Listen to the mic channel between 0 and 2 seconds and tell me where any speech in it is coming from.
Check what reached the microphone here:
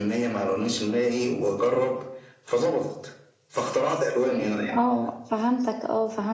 echo only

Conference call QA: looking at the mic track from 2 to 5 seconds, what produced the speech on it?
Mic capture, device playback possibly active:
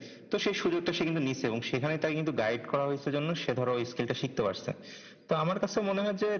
echo only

